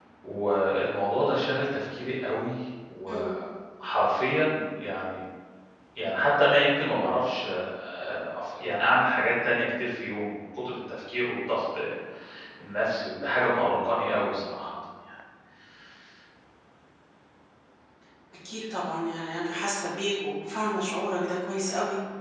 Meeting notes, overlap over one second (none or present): none